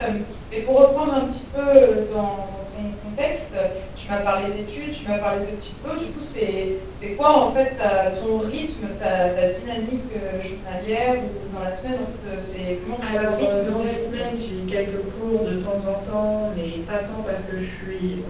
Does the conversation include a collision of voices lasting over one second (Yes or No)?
Yes